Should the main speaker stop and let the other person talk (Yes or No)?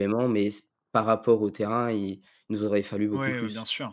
Yes